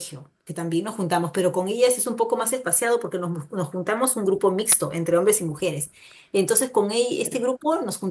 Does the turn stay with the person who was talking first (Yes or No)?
Yes